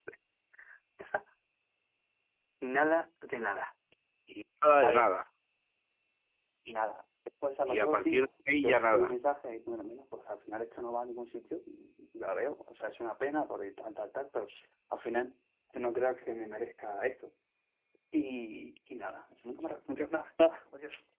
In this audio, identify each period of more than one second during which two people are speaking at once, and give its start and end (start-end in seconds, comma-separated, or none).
7.7-9.1